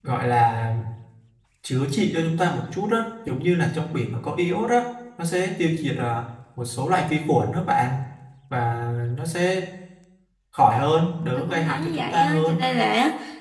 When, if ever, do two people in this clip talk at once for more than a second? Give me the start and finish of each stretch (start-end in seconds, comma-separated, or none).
11.3-12.6